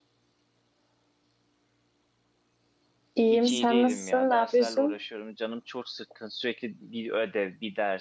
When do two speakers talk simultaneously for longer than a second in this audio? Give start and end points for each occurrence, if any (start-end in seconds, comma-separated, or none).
3.3-5.0